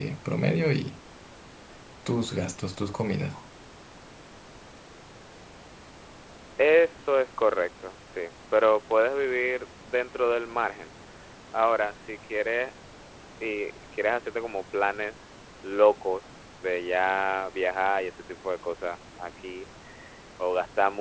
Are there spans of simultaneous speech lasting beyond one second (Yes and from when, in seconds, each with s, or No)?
No